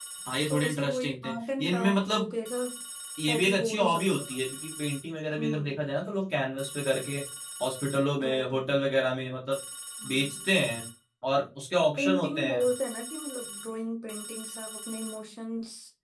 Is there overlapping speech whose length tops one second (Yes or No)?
Yes